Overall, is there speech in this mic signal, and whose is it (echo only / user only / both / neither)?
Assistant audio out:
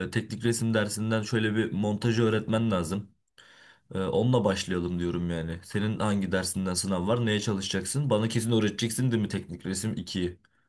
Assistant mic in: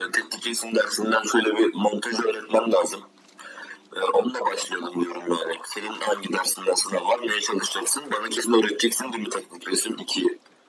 echo only